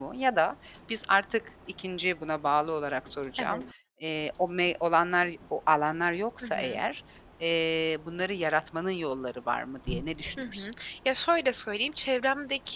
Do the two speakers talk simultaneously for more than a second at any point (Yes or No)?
No